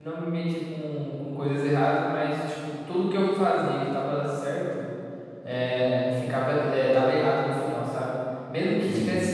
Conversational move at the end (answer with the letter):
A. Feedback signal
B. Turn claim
A